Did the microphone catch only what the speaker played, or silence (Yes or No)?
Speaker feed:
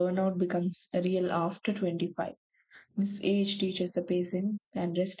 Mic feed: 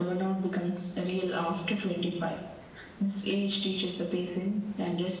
Yes